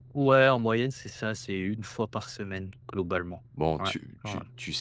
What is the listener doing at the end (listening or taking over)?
taking over